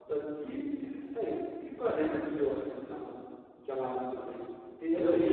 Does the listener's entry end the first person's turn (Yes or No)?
Yes